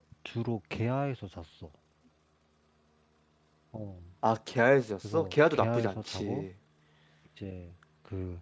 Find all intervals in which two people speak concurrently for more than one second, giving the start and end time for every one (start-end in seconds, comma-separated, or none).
5.1-6.5